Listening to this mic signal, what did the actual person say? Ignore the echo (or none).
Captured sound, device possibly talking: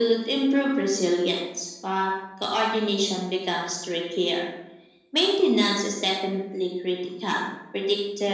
none